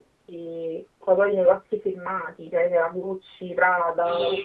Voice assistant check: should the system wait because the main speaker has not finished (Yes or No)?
No